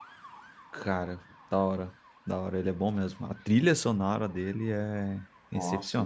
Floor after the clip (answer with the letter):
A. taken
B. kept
A